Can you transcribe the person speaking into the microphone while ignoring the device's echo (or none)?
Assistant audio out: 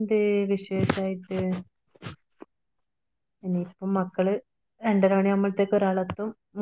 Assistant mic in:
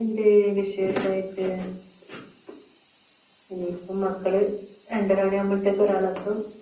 none